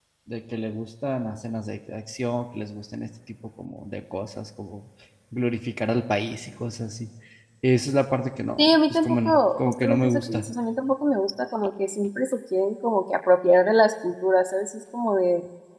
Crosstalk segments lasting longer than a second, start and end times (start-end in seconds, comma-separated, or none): 8.6-10.4